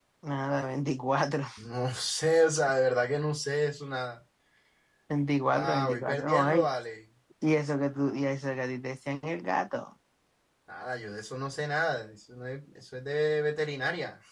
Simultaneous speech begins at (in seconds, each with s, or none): 5.4 s